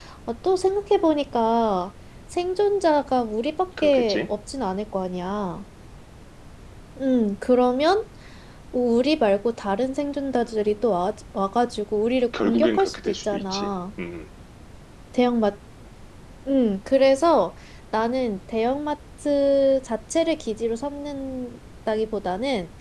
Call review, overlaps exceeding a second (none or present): present